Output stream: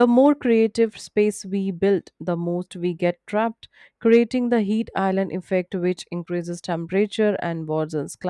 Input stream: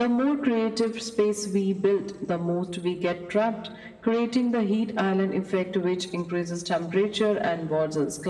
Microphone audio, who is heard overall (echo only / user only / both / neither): echo only